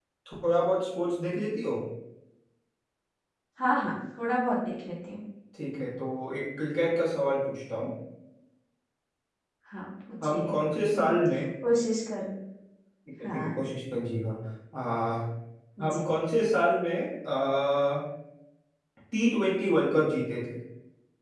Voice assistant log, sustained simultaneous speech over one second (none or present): none